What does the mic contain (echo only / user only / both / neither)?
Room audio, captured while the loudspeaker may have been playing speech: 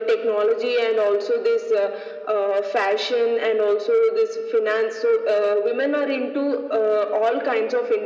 echo only